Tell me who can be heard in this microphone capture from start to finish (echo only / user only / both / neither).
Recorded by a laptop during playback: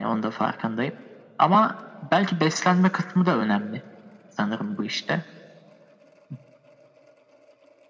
echo only